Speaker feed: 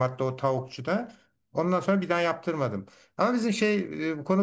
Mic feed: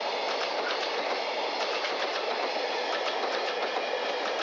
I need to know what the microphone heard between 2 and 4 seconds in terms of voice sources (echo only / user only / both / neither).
neither